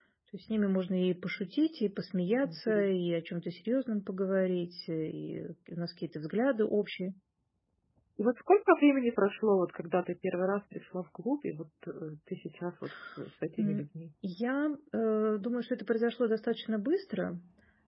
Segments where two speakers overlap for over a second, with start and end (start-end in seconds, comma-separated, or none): none